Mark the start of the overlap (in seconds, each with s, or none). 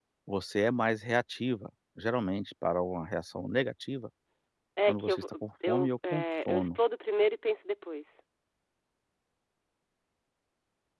4.9 s